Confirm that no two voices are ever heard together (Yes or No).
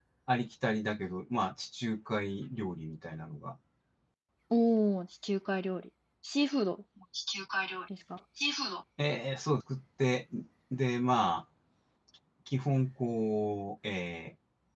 Yes